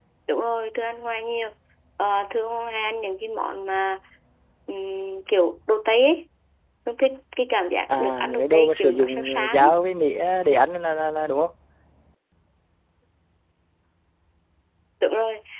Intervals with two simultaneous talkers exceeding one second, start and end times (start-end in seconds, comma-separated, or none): 8.0-9.7